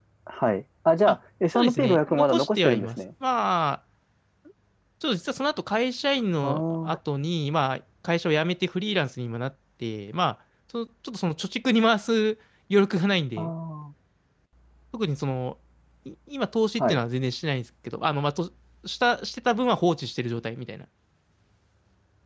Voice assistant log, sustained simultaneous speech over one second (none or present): present